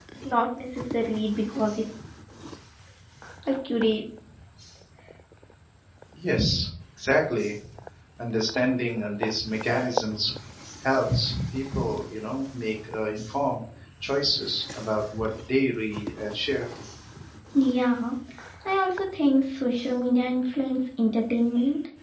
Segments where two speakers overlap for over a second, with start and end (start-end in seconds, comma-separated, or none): none